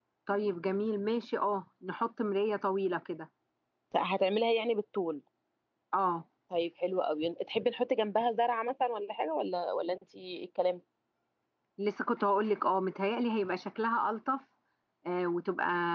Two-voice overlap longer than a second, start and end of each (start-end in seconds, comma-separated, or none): none